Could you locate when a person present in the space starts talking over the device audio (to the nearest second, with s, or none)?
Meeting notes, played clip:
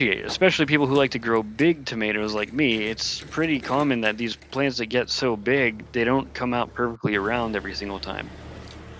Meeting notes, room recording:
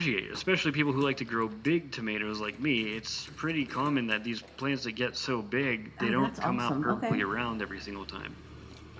6 s